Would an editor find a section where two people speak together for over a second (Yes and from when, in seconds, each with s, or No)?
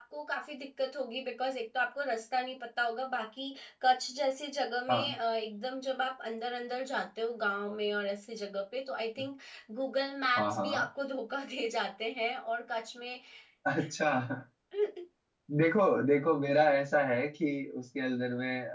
No